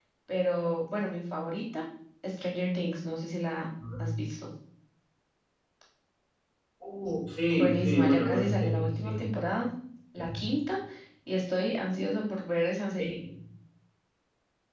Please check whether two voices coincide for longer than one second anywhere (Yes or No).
Yes